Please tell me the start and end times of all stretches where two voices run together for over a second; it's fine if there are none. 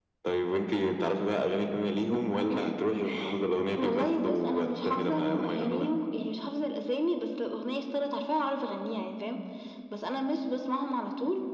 3.8-5.9

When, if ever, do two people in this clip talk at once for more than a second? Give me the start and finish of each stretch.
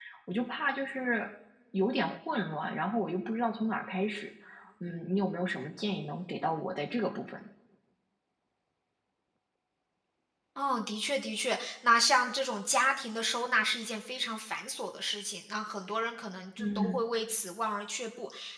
none

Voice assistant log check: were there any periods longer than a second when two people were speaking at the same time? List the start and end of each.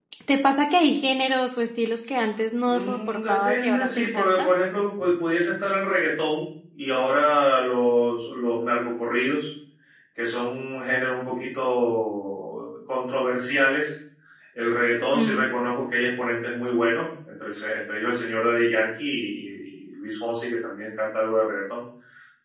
2.7-4.5

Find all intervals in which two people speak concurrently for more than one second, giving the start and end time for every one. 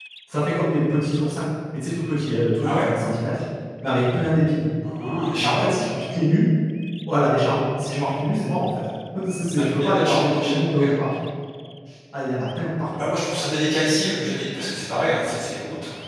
9.6-10.8

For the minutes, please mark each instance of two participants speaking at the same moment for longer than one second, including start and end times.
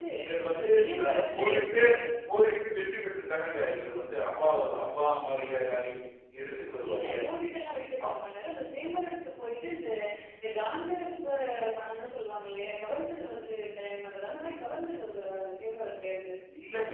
0.5-1.8

